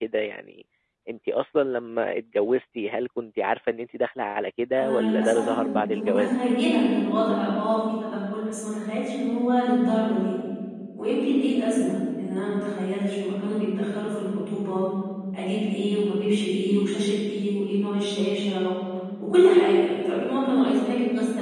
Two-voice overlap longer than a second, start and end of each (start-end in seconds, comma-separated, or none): 4.8-6.3